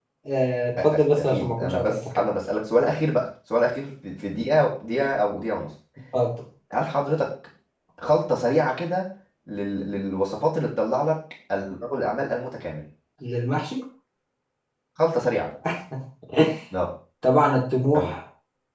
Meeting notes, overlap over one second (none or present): present